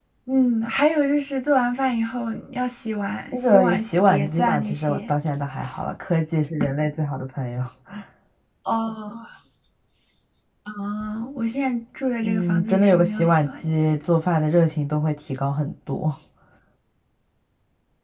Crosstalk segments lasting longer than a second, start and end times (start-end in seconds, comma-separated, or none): 3.3-5.1, 12.2-14.1